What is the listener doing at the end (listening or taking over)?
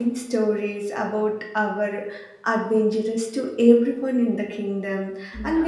listening